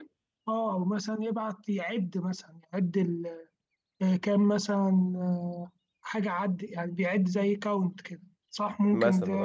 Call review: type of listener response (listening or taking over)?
taking over